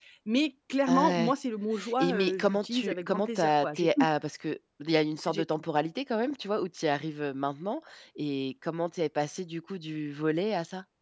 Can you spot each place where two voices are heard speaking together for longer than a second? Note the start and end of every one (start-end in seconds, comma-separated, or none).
2.0-4.1